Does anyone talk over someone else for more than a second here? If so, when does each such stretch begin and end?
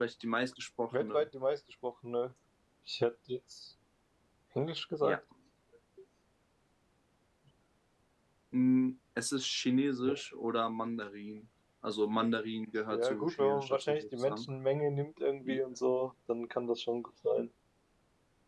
12.9-14.5

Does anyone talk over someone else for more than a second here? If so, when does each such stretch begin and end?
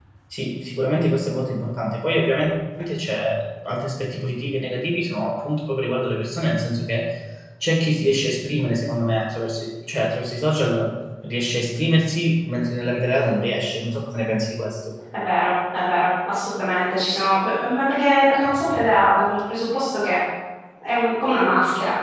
none

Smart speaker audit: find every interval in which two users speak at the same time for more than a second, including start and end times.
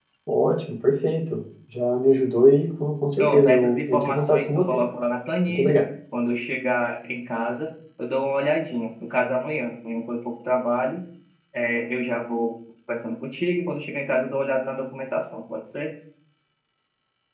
3.2-4.8

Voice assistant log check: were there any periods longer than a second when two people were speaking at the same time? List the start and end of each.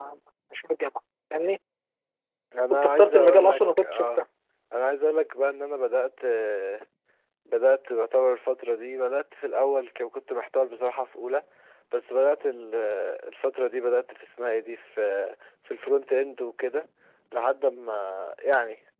2.7-4.1

